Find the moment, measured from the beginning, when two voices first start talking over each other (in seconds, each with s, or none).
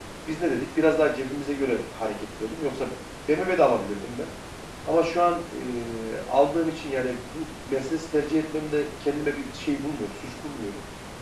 none